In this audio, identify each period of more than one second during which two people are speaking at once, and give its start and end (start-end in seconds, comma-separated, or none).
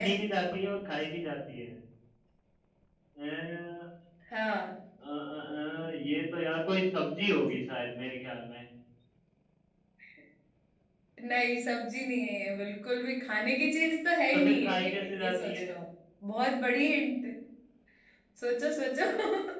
14.3-15.7